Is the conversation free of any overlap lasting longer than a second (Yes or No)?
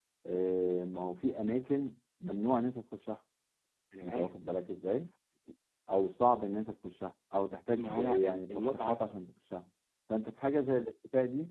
No